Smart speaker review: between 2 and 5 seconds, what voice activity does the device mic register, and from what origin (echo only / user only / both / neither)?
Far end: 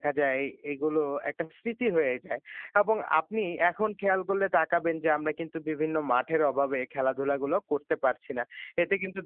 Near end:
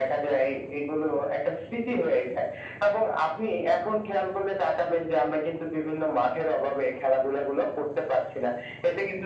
echo only